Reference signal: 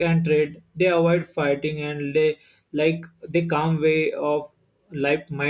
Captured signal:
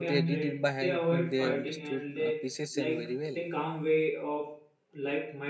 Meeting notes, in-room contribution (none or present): present